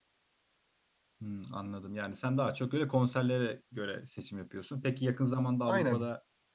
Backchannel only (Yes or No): Yes